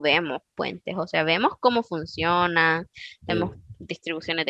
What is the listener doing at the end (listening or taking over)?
listening